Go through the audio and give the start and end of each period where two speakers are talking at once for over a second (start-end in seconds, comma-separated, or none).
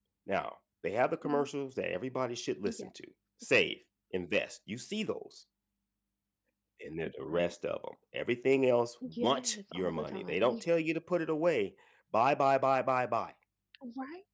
9.2-10.6